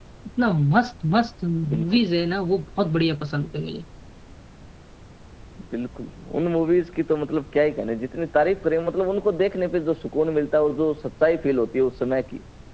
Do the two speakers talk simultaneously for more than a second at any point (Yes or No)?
No